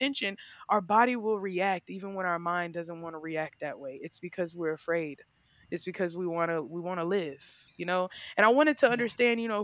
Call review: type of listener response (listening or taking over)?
listening